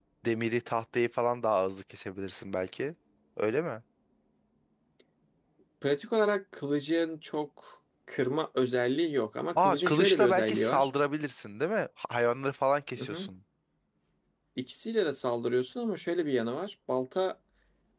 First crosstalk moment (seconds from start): 9.6 s

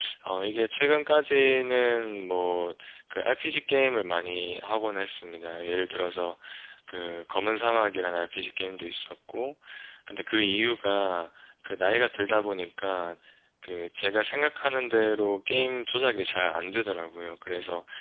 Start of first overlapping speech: none

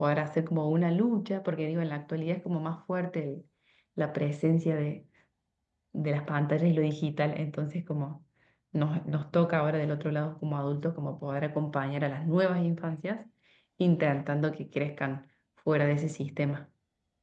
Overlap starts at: none

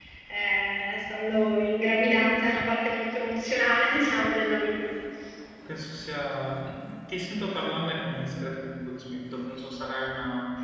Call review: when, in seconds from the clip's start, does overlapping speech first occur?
none

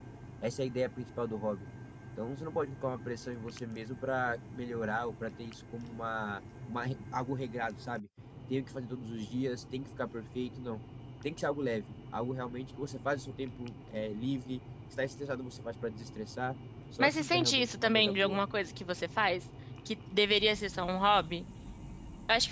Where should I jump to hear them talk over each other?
17.0 s

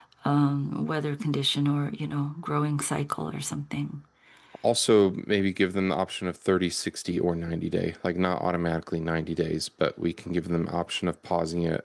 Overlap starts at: none

